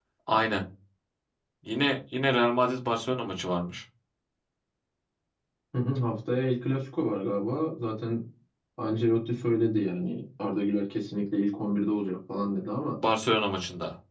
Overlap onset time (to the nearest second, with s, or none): none